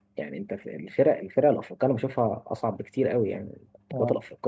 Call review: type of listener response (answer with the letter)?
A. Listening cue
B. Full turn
A